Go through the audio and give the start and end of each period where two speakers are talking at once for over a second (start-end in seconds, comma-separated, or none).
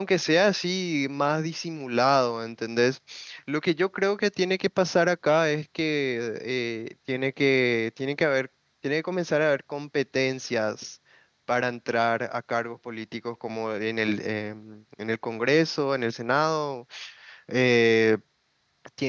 none